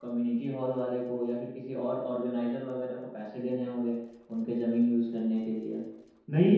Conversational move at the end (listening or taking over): taking over